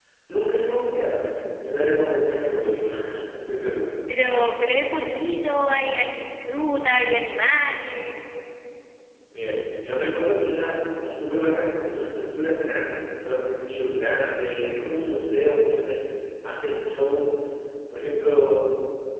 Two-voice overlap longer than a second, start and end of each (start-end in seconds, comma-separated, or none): none